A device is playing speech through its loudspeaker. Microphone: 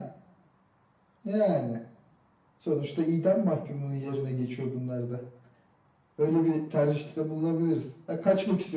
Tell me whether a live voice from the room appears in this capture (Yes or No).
No